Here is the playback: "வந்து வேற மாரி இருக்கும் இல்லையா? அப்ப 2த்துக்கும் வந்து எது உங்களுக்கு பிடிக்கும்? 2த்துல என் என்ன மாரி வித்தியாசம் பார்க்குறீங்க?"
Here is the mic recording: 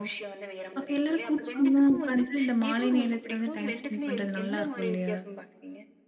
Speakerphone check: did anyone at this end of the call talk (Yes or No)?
Yes